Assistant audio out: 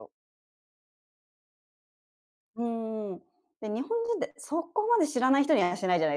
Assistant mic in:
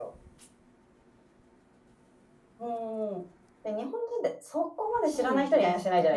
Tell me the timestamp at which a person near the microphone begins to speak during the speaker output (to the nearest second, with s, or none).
5 s